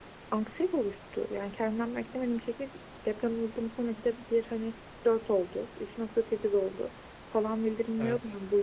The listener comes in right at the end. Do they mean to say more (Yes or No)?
No